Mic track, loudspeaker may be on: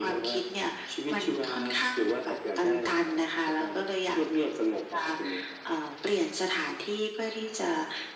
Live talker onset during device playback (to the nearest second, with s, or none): none